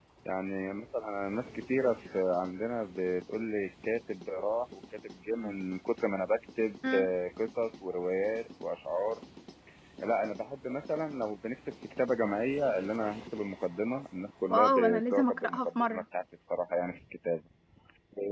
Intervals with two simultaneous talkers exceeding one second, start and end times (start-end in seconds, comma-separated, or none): 14.5-16.0